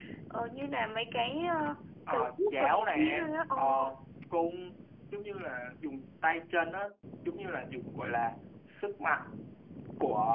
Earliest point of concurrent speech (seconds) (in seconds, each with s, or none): 2.1 s